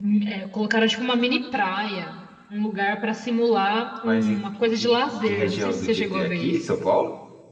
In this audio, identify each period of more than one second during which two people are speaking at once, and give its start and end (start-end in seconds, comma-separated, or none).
4.0-6.8